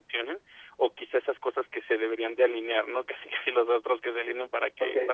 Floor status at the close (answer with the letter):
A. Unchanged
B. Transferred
A